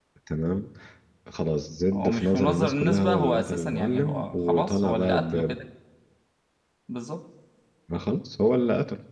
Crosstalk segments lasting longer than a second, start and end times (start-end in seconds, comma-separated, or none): 1.9-5.6